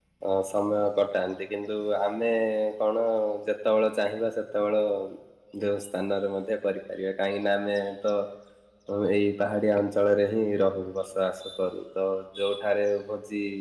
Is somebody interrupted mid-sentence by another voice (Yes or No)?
No